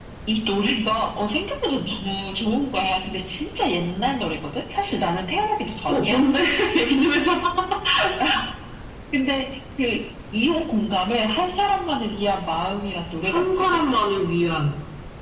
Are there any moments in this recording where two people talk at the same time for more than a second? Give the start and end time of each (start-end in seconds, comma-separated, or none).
none